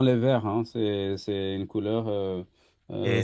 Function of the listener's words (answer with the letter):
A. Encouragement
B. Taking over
B